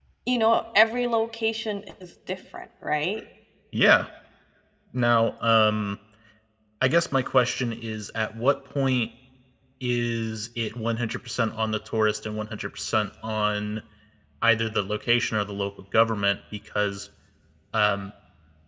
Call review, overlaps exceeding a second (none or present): none